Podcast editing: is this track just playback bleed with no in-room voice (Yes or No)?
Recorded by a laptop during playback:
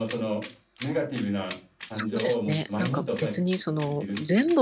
No